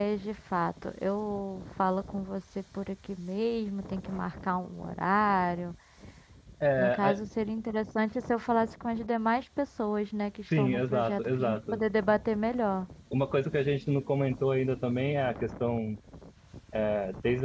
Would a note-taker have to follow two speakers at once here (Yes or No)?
Yes